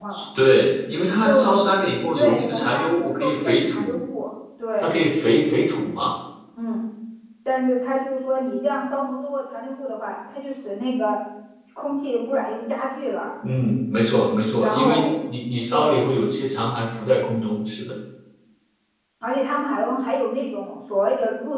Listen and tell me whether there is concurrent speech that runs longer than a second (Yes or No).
Yes